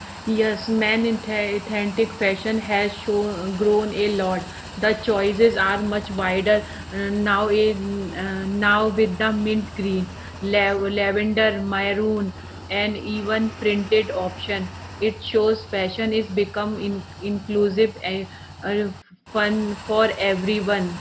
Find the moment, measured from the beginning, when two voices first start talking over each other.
none

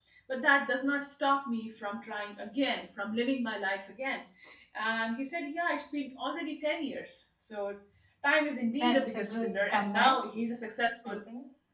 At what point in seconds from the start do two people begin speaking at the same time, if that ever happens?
8.8 s

